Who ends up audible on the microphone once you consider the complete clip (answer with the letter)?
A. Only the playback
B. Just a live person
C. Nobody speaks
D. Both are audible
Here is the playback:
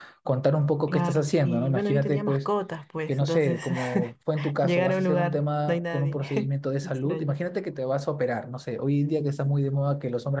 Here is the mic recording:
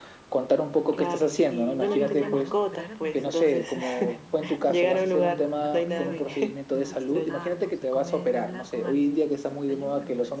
D